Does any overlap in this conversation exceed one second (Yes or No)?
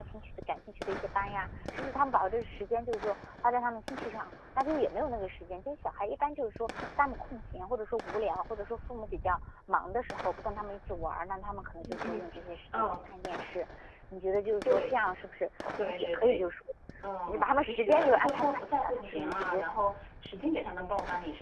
Yes